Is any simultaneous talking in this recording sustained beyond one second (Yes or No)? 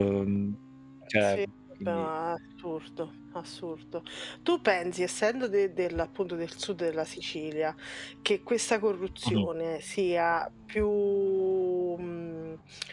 No